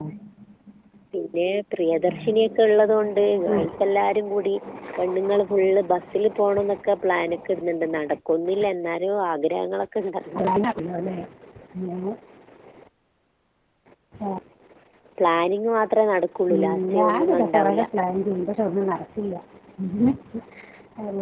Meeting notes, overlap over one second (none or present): present